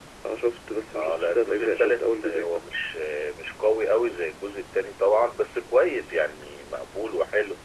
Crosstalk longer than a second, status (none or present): present